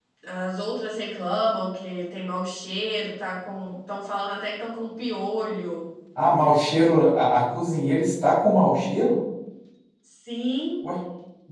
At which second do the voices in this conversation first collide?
none

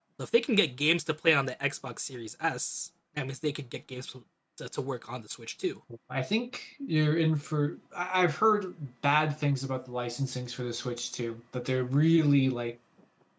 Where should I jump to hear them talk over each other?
none

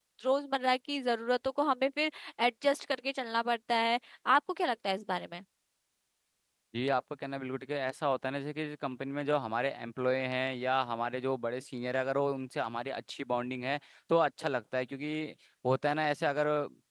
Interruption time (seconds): none

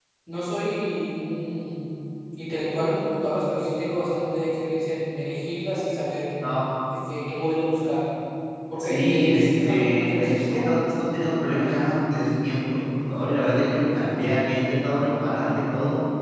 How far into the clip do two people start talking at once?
8.8 s

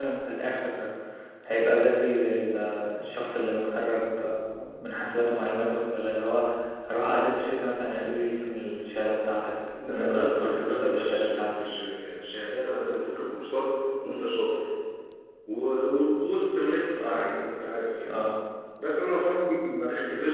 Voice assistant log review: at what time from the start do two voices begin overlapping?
9.8 s

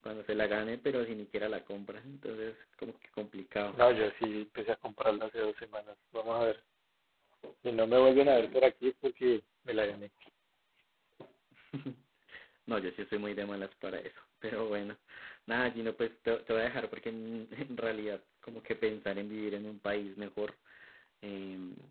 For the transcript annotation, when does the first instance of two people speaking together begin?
none

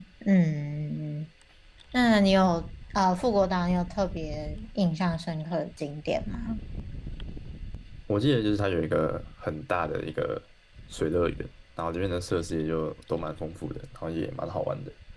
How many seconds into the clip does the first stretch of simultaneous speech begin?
none

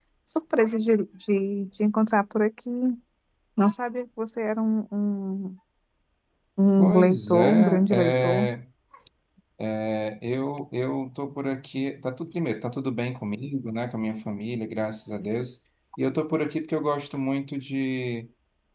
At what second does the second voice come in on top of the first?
6.8 s

